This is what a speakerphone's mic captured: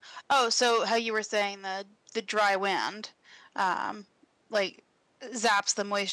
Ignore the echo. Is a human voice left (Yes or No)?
Yes